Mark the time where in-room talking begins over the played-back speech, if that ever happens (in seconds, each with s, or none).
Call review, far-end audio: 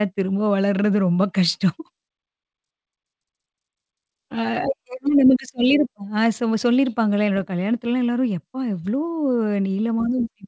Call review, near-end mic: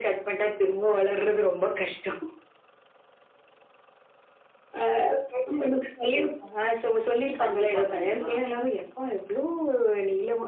7.4 s